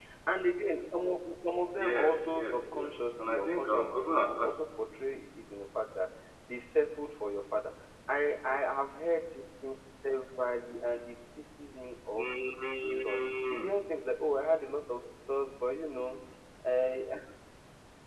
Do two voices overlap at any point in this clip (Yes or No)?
Yes